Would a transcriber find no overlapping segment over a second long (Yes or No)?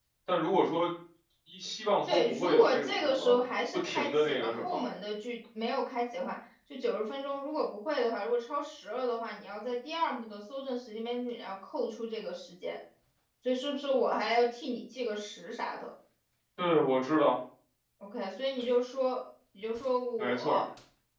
No